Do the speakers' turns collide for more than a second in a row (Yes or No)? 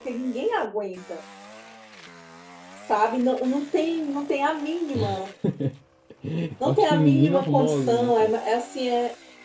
Yes